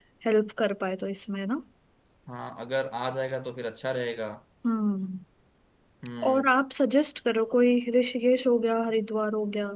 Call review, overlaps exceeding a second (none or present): none